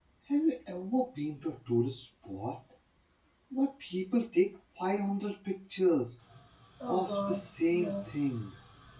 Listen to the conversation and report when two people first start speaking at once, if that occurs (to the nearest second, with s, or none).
7 s